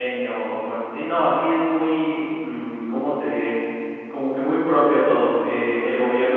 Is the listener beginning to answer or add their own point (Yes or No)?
No